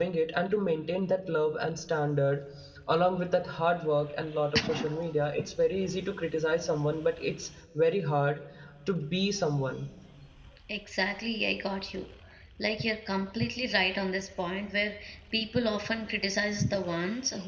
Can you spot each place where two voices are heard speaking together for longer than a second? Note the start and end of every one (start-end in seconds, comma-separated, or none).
none